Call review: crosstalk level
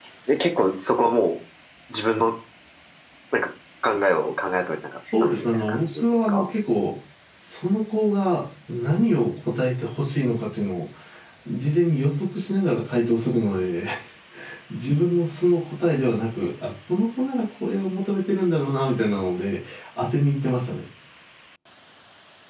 present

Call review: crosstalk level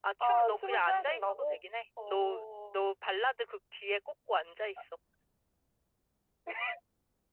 present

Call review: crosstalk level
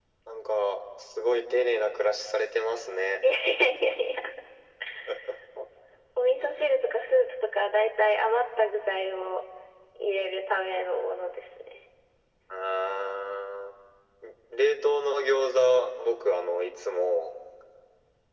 none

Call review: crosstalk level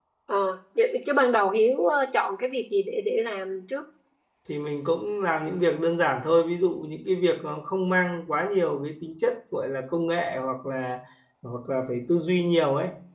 none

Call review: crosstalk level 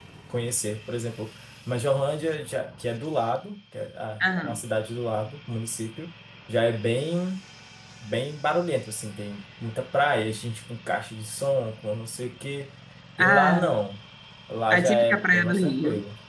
present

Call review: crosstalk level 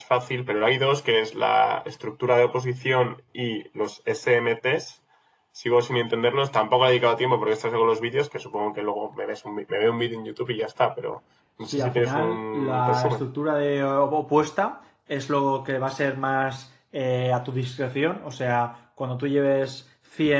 present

